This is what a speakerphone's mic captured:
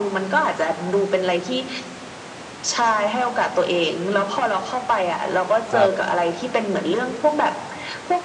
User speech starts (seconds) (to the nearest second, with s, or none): 6 s